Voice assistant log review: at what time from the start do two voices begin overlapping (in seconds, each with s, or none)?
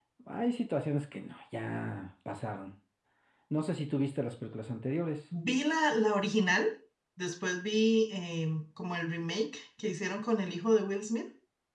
none